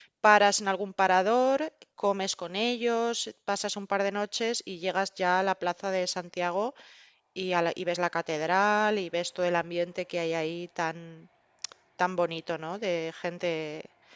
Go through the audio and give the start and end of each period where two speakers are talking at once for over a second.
none

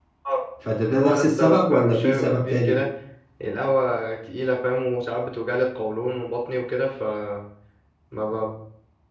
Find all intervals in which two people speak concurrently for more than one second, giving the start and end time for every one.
1.0-2.8

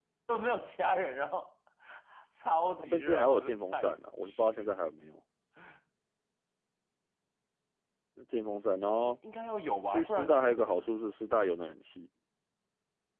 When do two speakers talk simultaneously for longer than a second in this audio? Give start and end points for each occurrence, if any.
2.8-4.8, 9.9-11.1

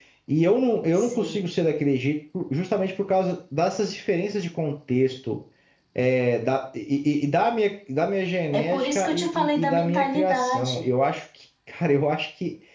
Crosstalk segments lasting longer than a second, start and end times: 8.5-10.9

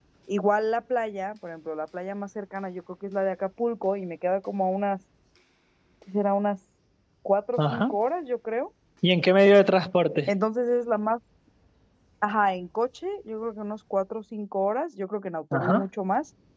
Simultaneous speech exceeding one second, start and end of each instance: none

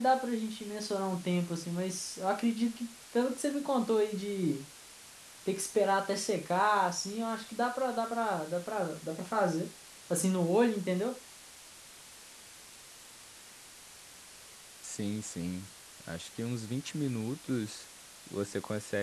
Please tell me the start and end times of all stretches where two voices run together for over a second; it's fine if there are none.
none

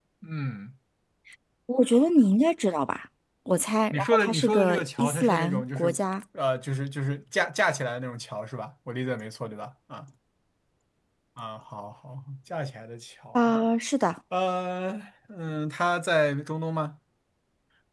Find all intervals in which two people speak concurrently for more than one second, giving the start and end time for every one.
3.9-6.0

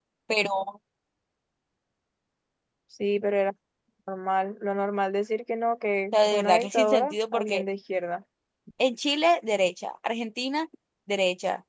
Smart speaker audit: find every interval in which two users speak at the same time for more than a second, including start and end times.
6.1-7.6

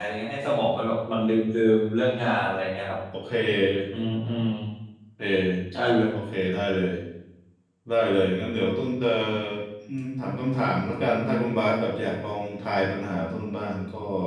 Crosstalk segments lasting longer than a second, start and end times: none

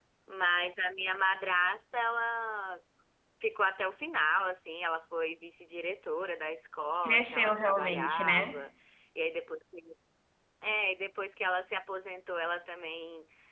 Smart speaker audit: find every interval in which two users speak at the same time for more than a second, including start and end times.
7.0-8.6

